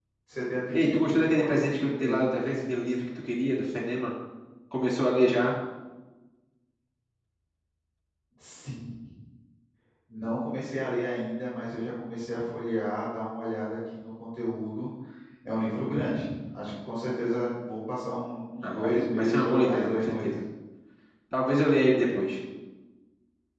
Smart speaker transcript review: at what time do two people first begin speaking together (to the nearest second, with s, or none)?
1 s